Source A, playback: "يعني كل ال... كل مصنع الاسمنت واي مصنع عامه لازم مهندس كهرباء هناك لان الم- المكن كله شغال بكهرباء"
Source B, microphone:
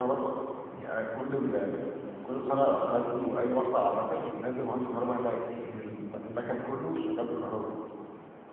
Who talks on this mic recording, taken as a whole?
echo only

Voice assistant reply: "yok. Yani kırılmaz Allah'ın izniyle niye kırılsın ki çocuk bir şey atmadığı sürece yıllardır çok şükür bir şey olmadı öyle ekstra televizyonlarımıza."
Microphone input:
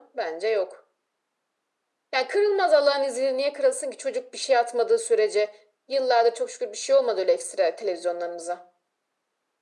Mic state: echo only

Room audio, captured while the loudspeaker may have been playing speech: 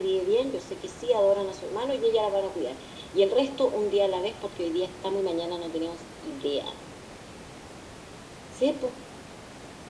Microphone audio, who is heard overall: echo only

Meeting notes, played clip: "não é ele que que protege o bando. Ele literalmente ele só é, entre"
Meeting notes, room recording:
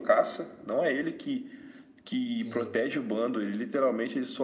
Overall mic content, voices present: both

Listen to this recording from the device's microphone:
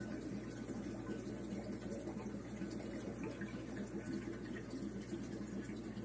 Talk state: neither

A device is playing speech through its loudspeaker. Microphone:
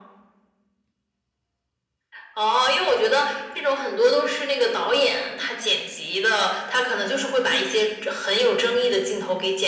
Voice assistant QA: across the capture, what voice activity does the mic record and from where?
echo only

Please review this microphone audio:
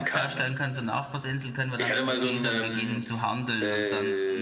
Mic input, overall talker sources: both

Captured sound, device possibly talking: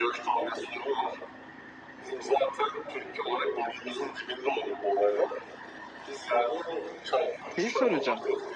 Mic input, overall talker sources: both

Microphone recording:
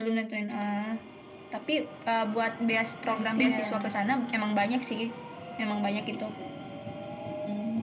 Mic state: both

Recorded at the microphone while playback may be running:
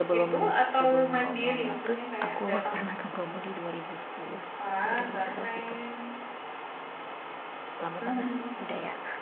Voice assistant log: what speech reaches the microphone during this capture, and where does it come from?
both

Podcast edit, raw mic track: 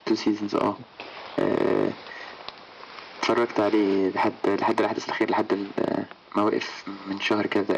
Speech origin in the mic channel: echo only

